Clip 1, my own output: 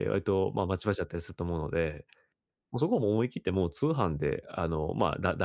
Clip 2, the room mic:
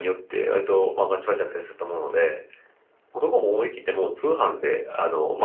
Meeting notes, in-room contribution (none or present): none